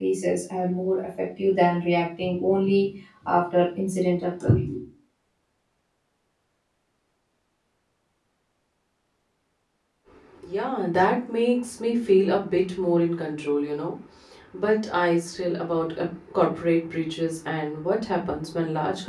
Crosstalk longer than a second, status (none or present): none